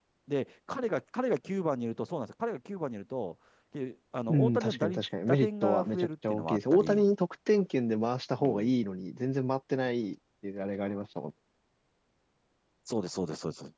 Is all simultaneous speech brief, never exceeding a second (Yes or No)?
No